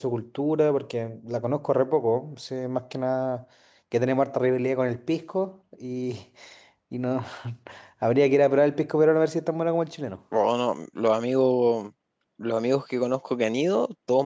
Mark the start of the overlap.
none

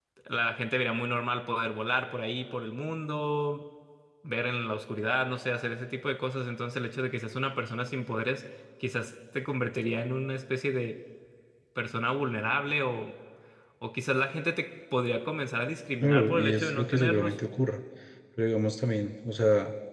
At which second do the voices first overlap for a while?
16.0 s

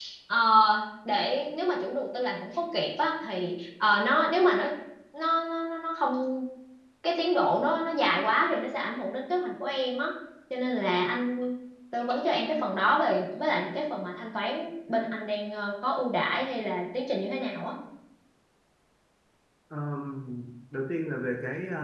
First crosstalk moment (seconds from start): none

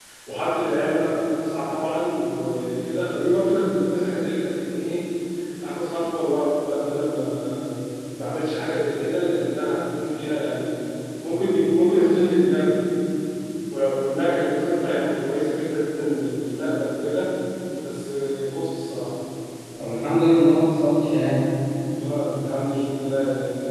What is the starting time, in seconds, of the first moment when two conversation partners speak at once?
none

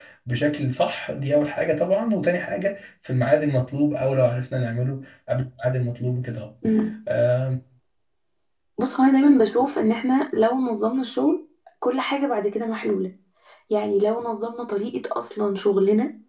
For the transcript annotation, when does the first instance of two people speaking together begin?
none

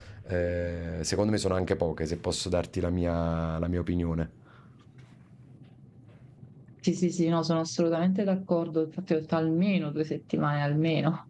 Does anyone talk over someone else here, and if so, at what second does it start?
none

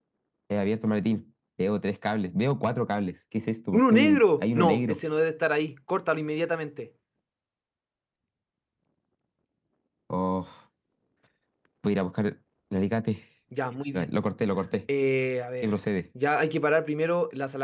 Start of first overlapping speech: 3.7 s

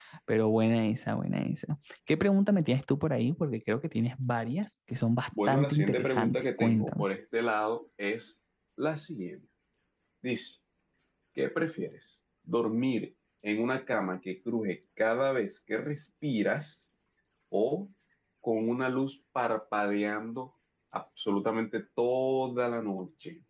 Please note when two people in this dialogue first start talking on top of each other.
5.3 s

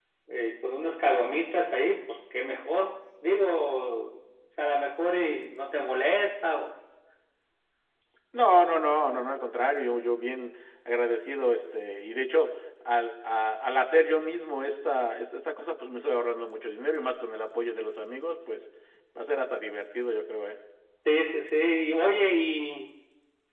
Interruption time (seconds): none

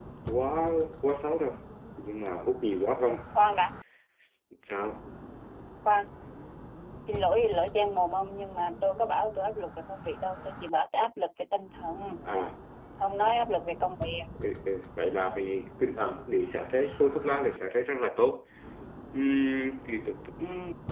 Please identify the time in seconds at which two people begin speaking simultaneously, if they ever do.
none

